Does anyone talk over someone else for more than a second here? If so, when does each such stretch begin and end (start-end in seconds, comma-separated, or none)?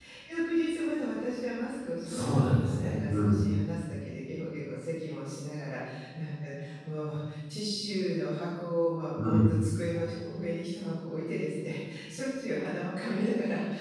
2.0-3.4